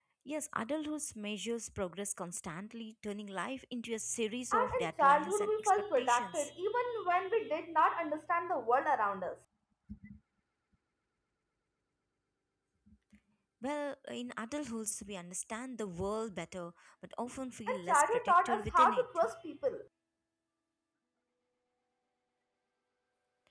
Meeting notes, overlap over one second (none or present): present